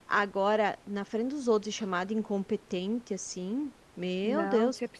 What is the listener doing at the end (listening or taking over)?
taking over